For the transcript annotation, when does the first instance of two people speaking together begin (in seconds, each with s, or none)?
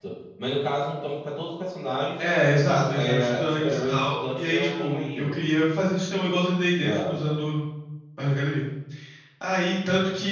2.2 s